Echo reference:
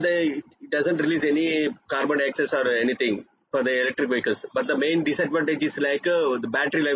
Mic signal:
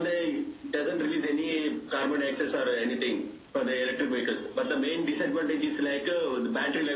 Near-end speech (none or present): none